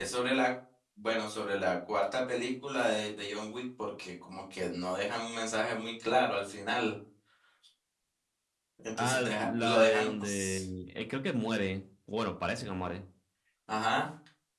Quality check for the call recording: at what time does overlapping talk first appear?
9.0 s

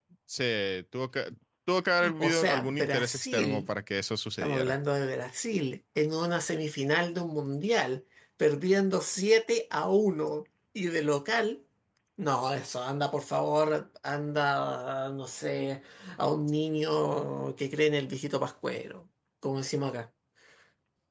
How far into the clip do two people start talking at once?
2.2 s

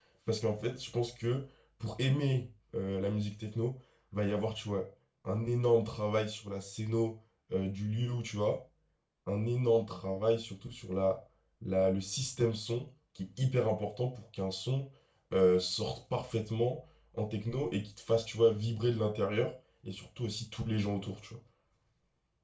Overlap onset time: none

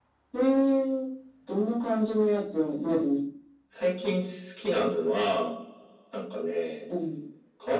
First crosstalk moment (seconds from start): none

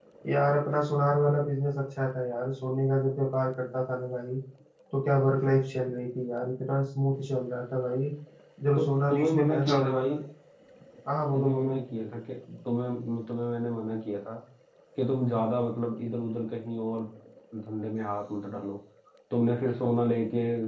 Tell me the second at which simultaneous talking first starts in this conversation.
8.8 s

